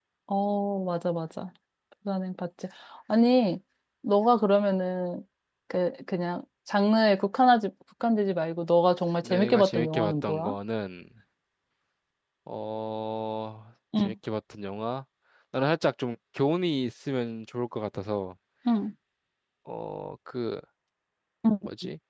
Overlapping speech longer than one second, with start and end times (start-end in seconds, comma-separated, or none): 9.2-10.5